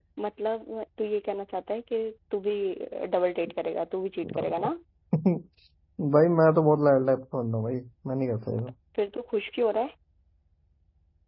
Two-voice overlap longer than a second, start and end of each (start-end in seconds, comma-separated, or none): none